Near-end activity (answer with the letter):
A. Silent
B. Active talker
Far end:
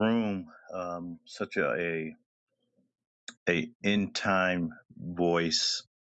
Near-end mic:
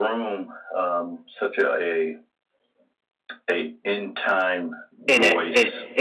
B